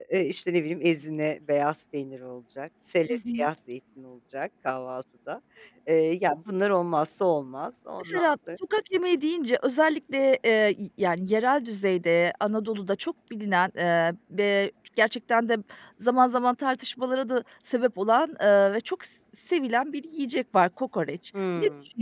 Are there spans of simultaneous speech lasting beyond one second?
No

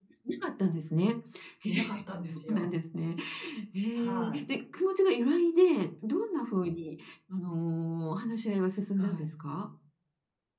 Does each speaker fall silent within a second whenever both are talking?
Yes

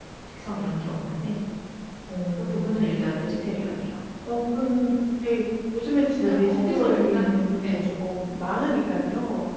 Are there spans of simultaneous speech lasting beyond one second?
Yes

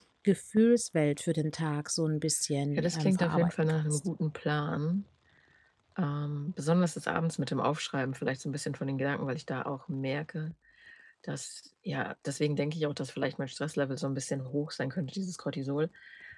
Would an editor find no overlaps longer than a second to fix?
No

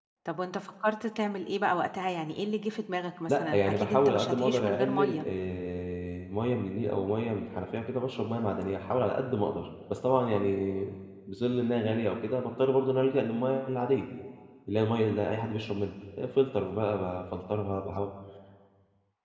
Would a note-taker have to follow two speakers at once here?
Yes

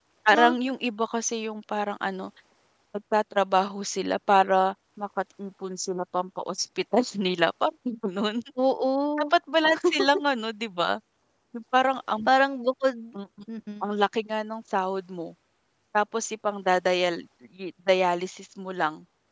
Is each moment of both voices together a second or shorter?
Yes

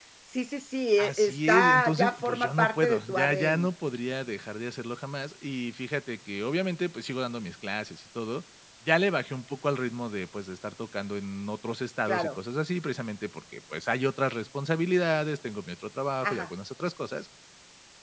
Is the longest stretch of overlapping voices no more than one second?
No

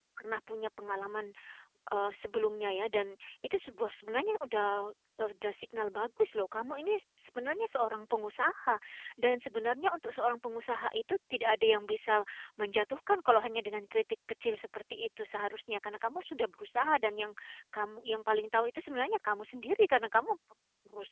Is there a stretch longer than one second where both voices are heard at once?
No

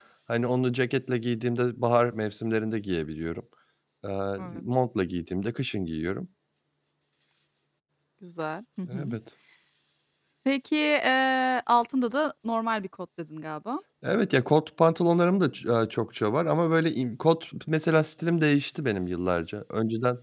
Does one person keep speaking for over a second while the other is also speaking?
No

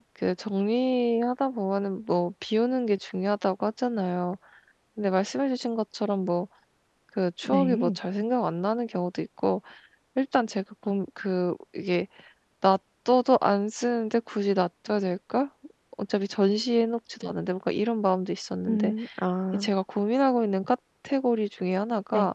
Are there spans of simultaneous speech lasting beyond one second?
No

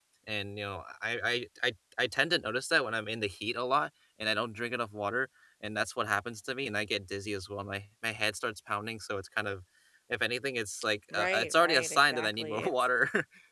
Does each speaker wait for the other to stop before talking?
No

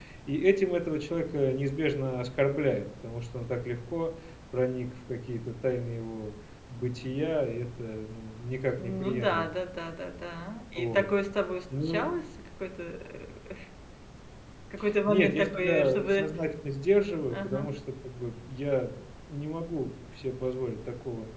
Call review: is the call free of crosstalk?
No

